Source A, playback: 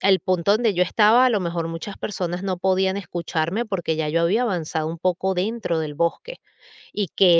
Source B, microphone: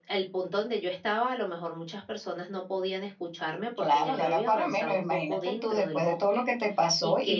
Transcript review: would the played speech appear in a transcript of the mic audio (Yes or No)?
Yes